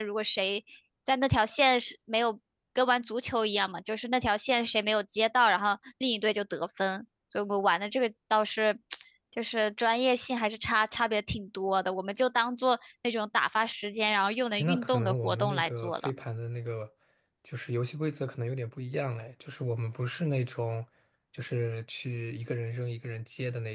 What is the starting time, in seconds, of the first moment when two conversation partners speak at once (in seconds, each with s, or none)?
14.6 s